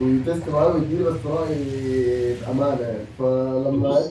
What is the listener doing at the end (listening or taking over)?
listening